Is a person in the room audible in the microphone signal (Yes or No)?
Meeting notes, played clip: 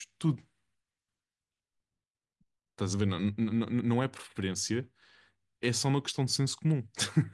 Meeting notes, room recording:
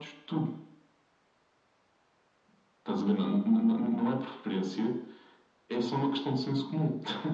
No